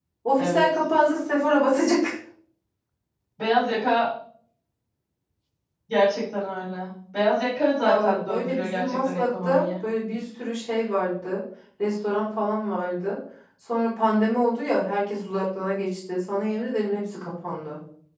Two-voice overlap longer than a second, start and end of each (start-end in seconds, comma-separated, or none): 7.8-9.7